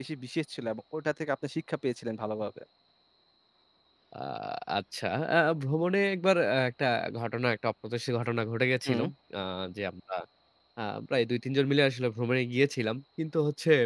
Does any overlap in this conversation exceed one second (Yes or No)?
No